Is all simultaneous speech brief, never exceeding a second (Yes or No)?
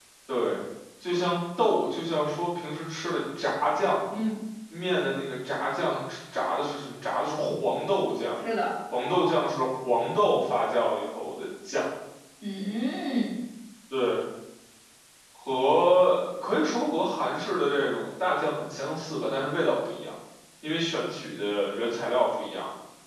Yes